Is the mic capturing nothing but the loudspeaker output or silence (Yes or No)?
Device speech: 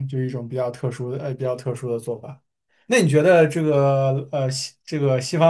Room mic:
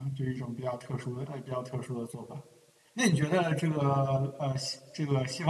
Yes